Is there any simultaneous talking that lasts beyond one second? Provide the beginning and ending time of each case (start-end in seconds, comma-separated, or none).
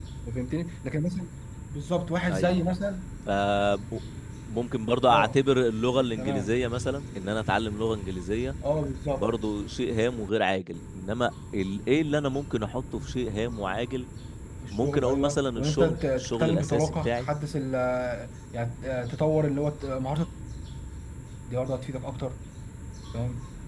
14.7-17.3